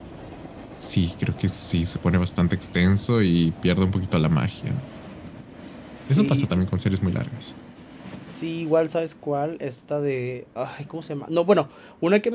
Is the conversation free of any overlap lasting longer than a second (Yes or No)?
Yes